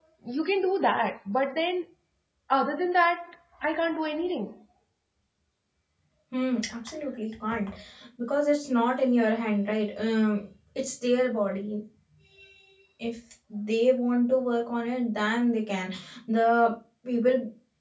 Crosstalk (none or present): none